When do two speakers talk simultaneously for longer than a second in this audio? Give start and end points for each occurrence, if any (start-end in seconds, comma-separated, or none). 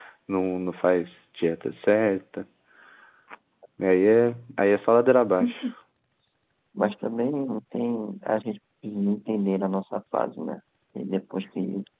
none